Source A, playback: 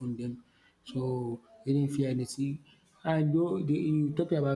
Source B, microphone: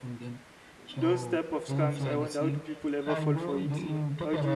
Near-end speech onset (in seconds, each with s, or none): 0.8 s